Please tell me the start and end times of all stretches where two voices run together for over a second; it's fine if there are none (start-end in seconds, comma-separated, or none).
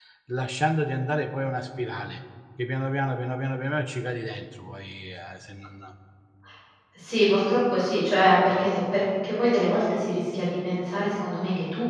none